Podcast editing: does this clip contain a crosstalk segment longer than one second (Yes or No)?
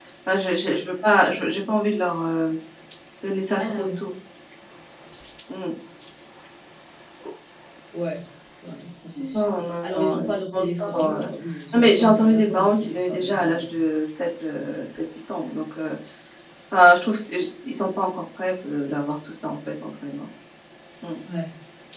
Yes